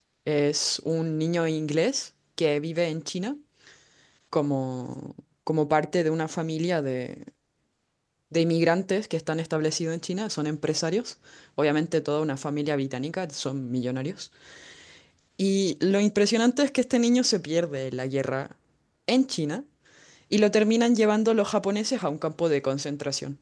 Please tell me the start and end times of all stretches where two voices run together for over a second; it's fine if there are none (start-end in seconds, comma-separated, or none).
none